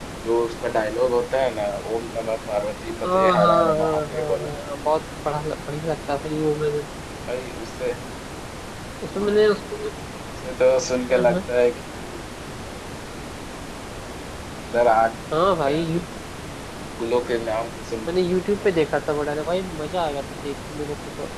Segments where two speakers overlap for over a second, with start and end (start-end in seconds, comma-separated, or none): 3.0-4.5